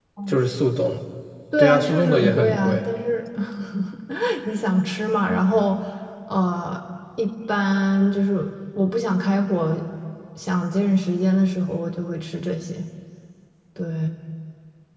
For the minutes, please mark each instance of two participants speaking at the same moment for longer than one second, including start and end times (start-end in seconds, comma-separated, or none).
1.6-2.8